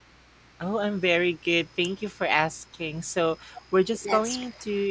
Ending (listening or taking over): listening